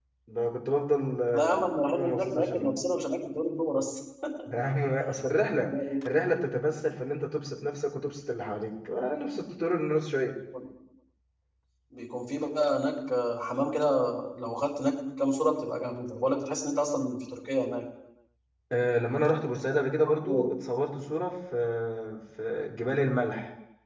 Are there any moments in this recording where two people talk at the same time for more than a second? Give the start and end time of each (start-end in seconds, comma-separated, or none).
1.3-2.7